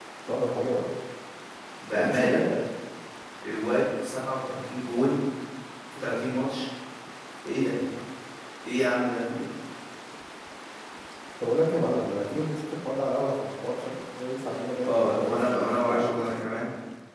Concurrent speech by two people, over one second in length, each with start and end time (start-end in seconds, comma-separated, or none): 14.8-16.4